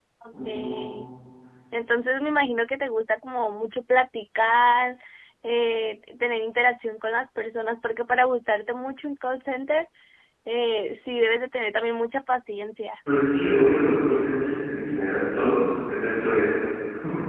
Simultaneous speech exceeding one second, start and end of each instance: none

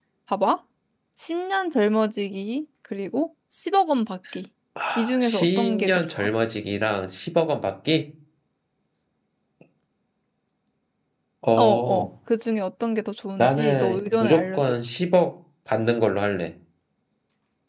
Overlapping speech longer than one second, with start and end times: 5.0-6.3, 13.4-14.7

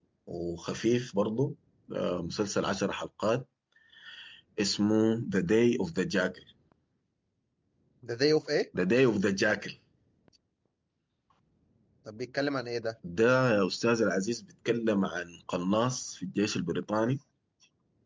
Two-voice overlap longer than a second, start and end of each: none

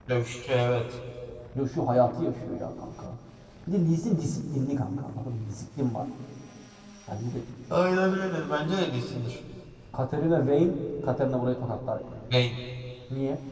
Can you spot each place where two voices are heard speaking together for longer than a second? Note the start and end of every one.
none

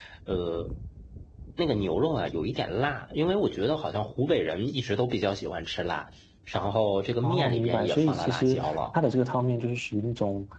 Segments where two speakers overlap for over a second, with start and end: 7.2-9.0

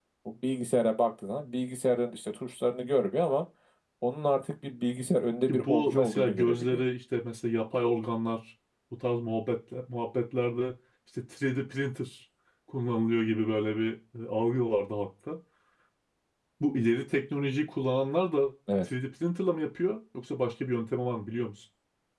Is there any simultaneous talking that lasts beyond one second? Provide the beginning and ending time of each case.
5.5-6.8

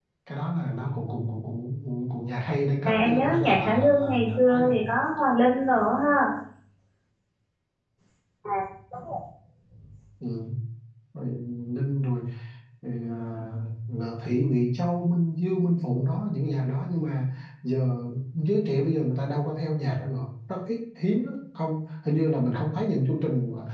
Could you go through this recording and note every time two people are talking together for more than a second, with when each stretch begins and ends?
2.9-4.8

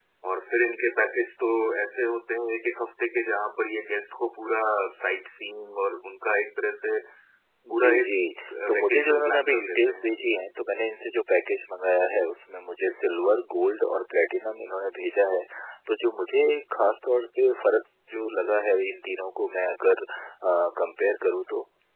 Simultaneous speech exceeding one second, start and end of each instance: 8.7-10.2

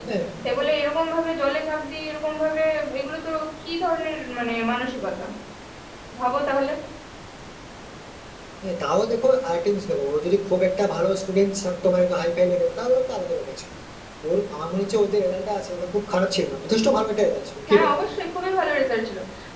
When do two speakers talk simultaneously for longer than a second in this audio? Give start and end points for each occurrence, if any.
none

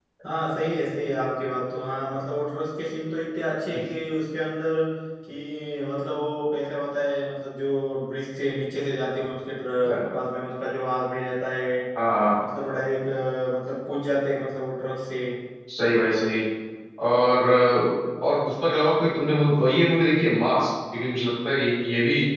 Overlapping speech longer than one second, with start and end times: none

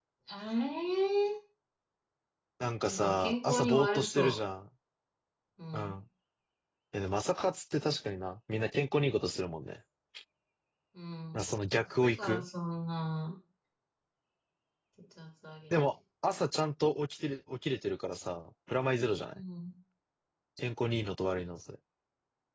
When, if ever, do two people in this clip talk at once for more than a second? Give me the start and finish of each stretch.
2.8-4.3

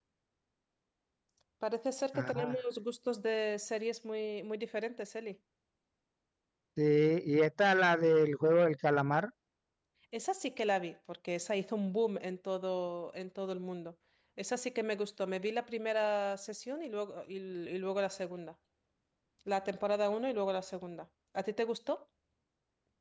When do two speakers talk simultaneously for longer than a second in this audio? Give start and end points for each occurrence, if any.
none

